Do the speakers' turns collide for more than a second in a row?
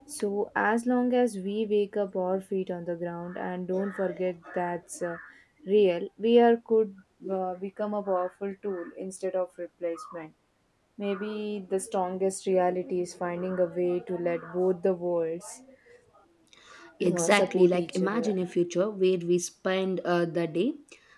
Yes, from 17.2 s

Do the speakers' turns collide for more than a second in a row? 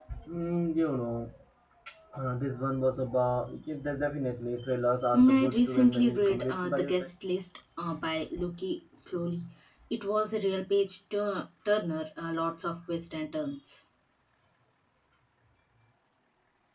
Yes, from 5.1 s

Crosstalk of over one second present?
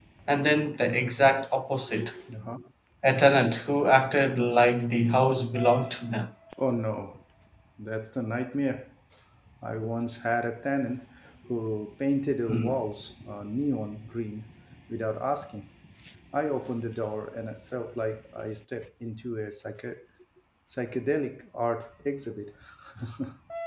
No

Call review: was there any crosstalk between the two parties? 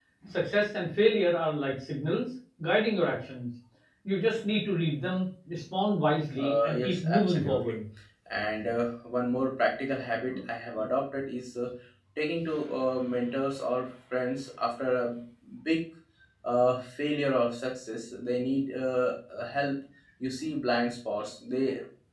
Yes, from 6.4 s

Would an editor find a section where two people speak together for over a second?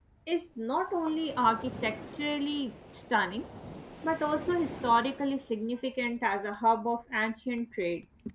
No

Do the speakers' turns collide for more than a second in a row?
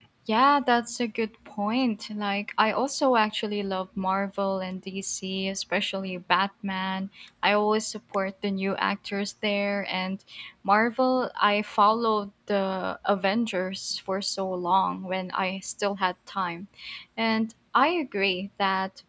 No

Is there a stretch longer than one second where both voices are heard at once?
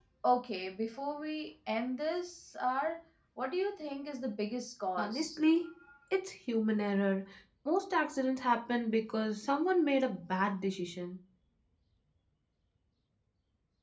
No

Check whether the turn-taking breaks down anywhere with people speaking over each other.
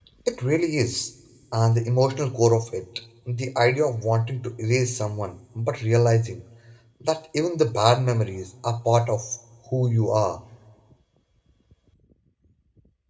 No

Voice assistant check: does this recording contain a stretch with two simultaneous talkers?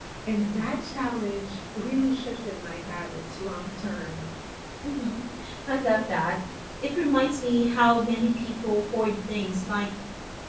No

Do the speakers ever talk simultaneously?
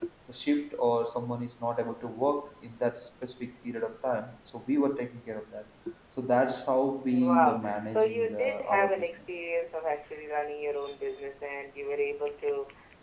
Yes, from 7.1 s

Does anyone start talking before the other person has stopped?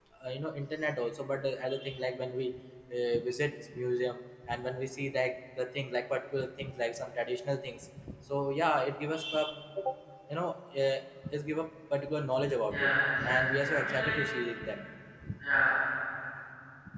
Yes, from 12.7 s

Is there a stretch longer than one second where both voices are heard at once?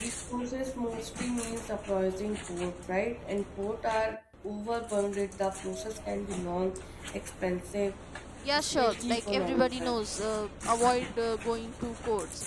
Yes, from 8.5 s

